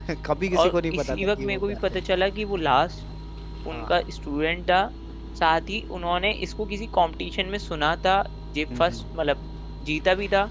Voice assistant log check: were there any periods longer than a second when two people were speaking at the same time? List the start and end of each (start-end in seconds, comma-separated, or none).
0.6-2.0